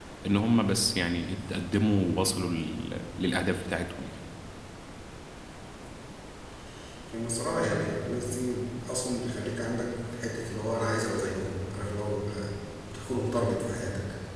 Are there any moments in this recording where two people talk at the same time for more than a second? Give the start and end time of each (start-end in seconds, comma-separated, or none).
none